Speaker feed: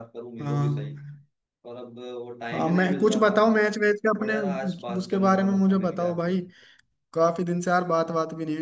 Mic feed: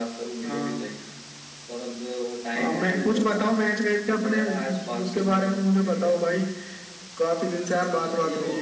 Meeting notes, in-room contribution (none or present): present